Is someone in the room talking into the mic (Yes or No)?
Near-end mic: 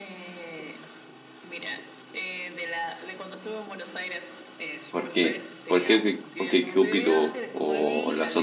Yes